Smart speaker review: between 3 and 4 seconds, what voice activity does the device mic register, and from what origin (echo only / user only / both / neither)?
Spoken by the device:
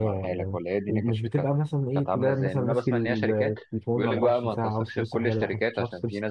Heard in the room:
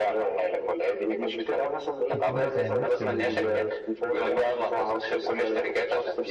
both